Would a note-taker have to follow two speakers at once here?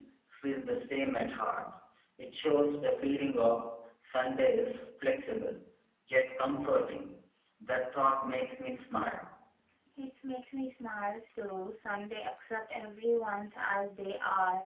No

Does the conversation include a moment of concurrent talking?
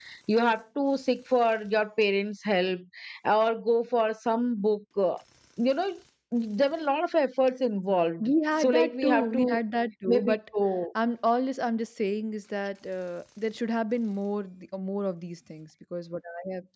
Yes, from 8.2 s

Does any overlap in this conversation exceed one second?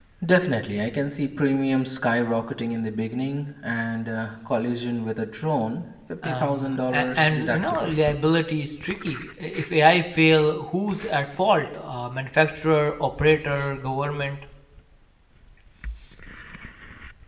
Yes, from 6.2 s

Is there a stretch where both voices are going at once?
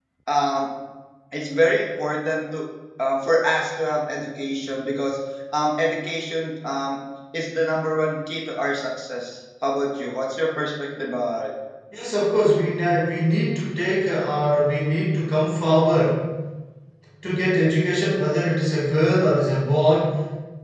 No

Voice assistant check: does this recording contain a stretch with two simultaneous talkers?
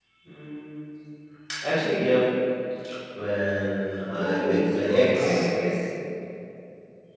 Yes, from 4.1 s

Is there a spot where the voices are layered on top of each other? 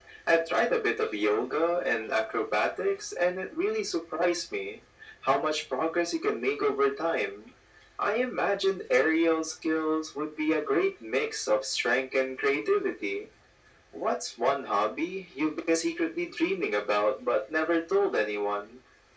No

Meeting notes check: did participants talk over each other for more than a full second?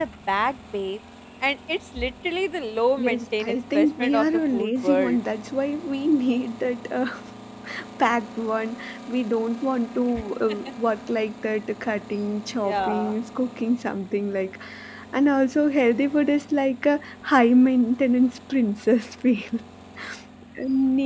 Yes, from 3.0 s

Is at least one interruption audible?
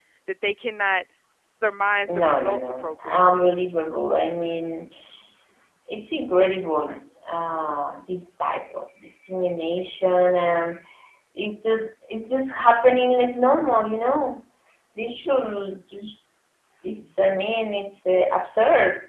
Yes, from 2.1 s

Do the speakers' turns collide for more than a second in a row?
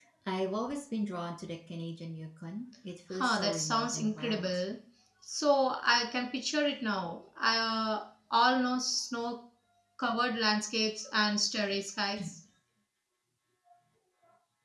Yes, from 3.1 s

